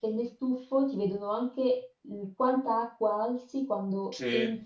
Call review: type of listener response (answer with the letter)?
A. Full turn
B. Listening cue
B